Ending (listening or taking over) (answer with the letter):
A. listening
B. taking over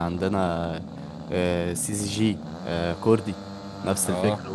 B